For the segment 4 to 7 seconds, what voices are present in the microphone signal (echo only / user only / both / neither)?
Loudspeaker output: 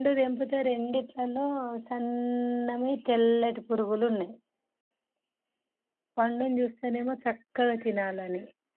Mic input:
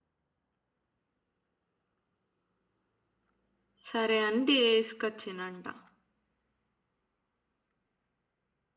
user only